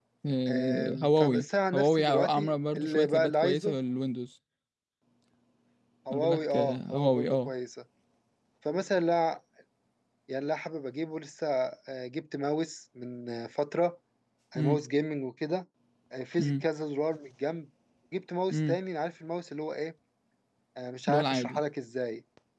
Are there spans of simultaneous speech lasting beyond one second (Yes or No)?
Yes